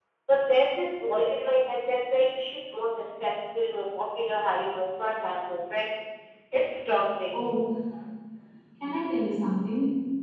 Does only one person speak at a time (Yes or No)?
Yes